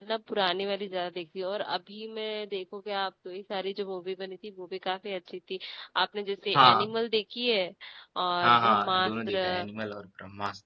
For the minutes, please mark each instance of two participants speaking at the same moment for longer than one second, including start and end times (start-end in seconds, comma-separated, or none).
8.4-9.7